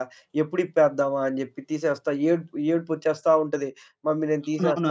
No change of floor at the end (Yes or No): No